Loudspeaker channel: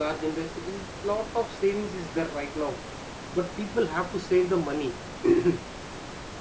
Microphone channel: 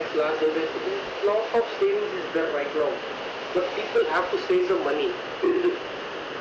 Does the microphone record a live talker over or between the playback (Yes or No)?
No